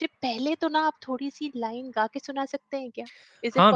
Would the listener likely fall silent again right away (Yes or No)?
No